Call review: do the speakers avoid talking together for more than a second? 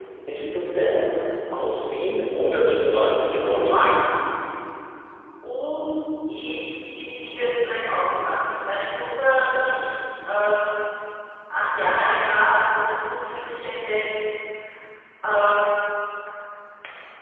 No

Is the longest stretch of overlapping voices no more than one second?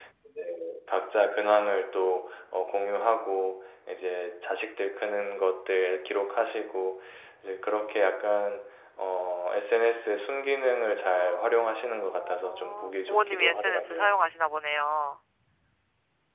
No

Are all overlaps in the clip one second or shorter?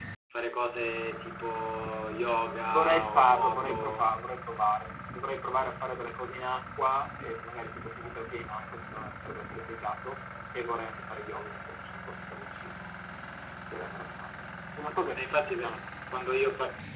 No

